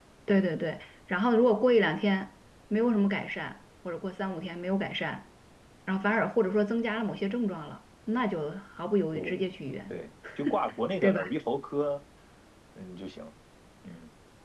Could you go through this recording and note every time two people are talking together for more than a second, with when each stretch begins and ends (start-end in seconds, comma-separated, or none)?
none